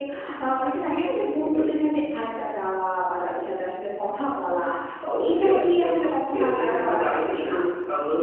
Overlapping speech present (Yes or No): Yes